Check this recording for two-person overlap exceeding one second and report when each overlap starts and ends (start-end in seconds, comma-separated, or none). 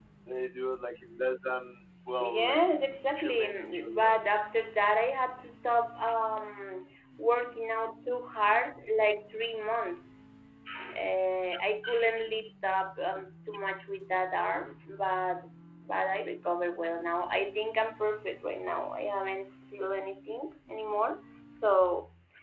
2.2-4.3